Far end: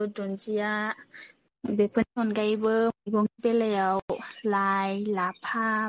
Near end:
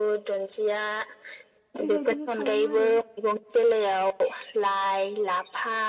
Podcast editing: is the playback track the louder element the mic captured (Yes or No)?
Yes